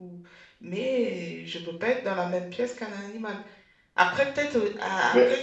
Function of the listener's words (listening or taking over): listening